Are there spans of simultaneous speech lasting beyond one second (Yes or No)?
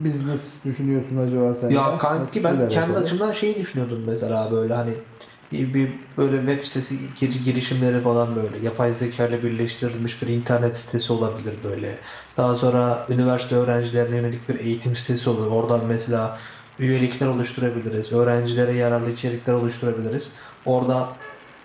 Yes